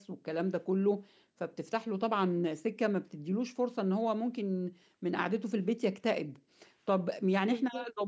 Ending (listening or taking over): listening